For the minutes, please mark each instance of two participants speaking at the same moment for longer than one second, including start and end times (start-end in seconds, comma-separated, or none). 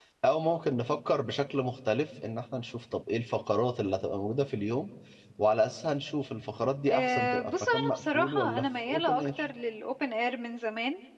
6.9-9.4